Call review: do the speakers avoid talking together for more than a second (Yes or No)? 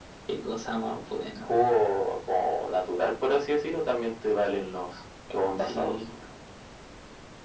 Yes